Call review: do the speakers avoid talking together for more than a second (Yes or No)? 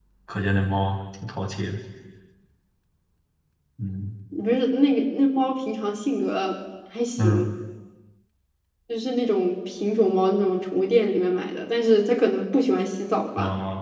Yes